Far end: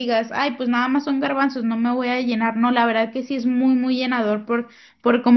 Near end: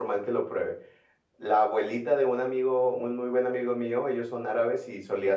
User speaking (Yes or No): Yes